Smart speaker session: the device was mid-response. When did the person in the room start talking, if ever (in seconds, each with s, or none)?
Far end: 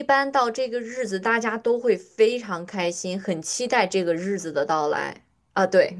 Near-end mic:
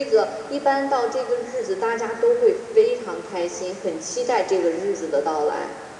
none